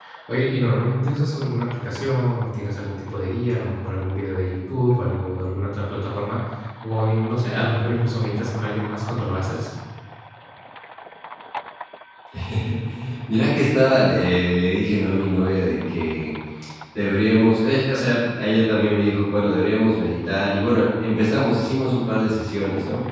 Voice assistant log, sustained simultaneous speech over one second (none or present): none